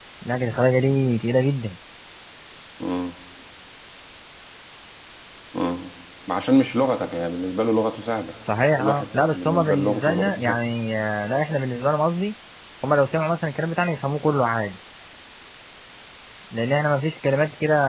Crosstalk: present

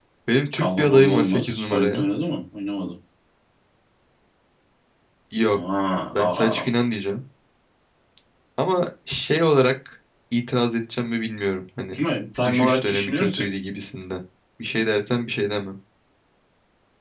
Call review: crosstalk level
present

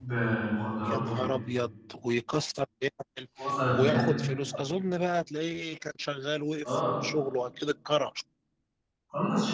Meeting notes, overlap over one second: none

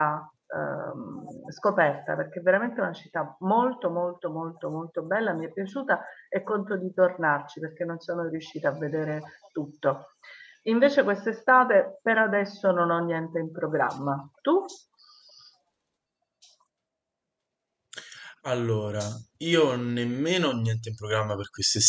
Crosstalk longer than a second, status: none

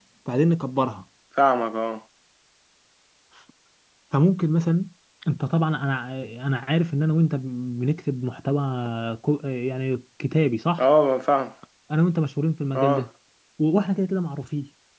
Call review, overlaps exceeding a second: none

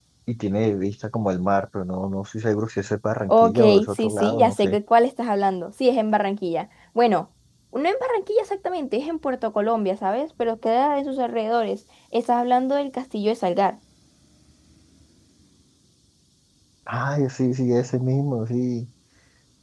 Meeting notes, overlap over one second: present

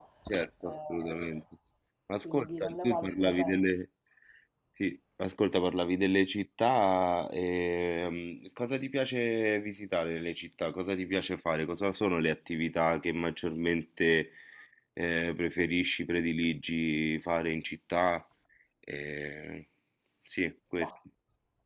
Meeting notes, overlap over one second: present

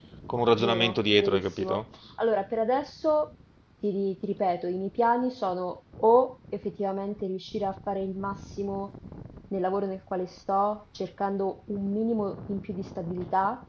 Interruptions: present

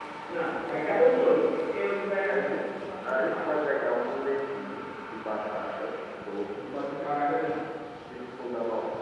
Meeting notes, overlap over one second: none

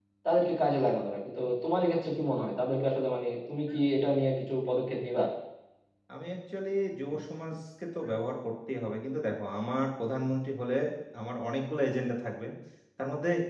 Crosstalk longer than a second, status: none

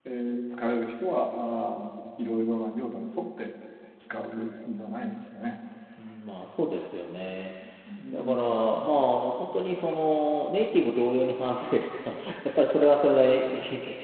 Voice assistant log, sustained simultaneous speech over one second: none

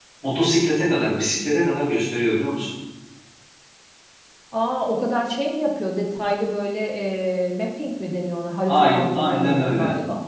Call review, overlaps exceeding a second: present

